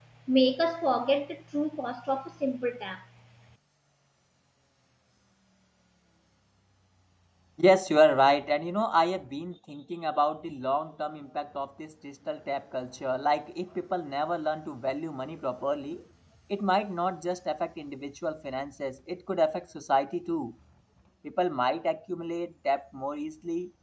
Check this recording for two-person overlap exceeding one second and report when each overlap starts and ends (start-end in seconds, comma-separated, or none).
none